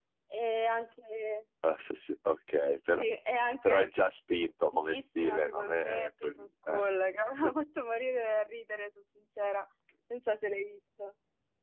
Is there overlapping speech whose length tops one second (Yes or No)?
Yes